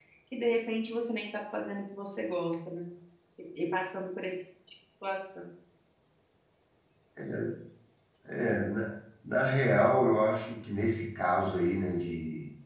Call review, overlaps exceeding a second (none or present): none